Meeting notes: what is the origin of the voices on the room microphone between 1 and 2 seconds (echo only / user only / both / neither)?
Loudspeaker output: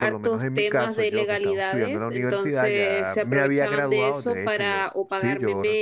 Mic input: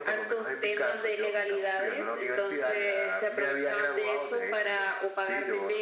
echo only